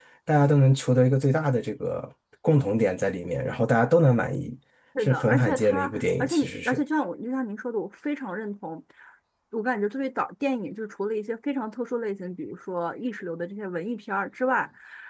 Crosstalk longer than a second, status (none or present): present